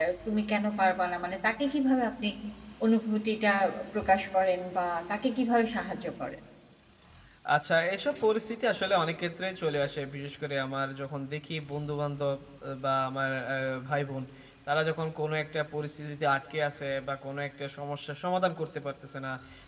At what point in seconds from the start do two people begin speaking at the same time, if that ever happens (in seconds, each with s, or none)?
none